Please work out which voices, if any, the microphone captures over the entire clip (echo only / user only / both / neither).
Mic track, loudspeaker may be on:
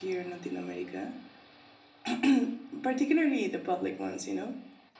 echo only